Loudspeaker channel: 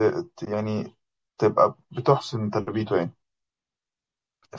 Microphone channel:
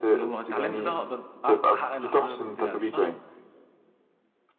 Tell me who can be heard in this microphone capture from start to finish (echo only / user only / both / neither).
both